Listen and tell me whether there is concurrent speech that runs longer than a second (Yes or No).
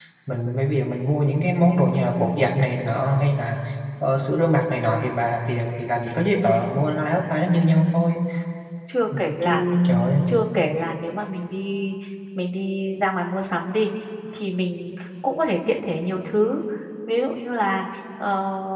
No